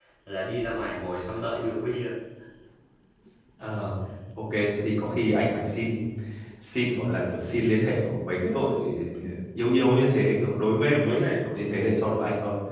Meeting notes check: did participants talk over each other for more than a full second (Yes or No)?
No